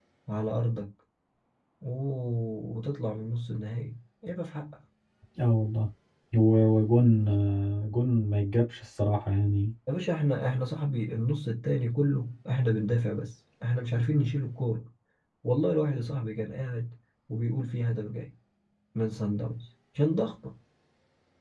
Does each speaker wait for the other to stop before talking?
Yes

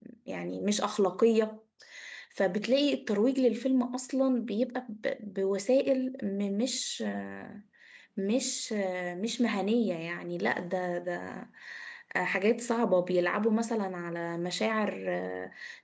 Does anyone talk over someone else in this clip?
No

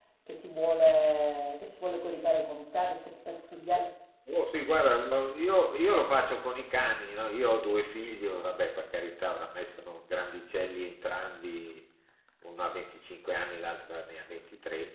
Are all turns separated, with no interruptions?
Yes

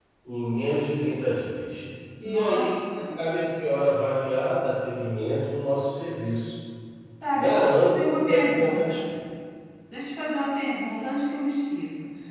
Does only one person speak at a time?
No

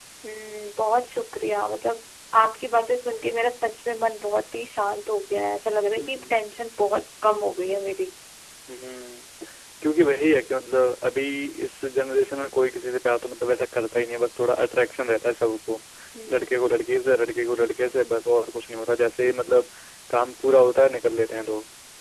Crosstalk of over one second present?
No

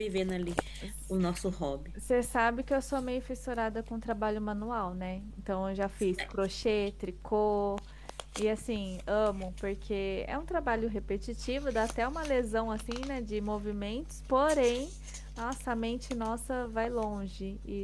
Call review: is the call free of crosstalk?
Yes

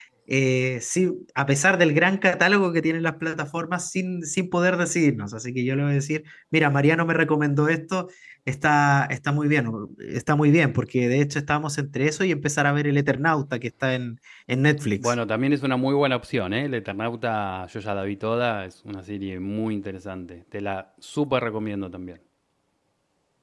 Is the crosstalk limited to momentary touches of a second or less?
Yes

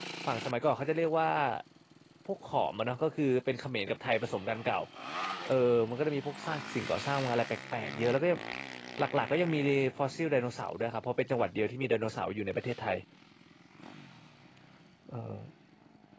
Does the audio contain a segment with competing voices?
No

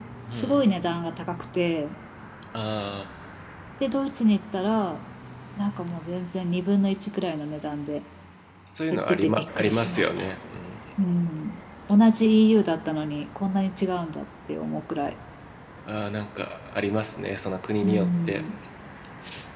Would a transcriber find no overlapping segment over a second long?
No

